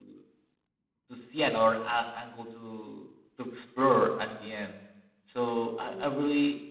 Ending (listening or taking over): listening